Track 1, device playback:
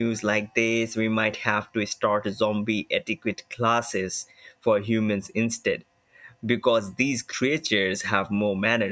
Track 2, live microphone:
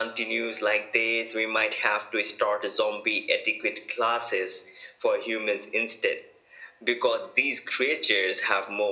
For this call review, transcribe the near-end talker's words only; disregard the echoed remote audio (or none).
none